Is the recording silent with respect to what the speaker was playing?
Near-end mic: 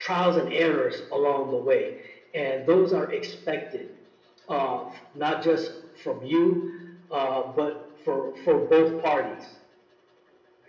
No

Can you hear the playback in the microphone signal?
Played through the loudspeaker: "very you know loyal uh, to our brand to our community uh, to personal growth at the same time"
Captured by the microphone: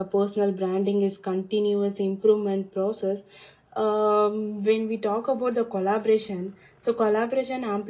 No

